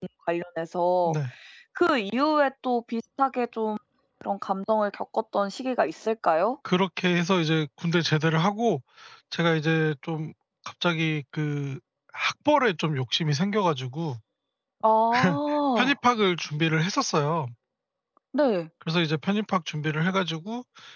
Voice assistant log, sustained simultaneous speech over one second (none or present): none